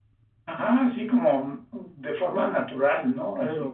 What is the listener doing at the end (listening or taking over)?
taking over